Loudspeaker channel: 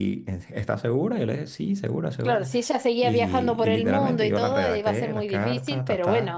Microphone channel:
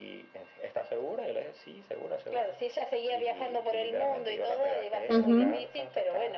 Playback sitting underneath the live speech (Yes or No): Yes